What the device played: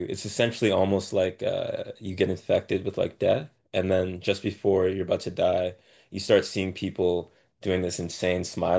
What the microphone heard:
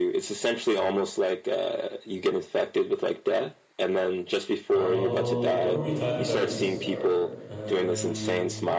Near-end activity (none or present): present